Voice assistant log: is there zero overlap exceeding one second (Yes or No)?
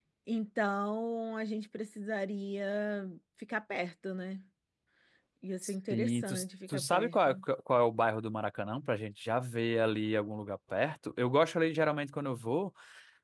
No